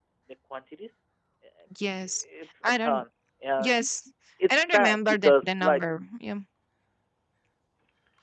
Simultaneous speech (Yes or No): Yes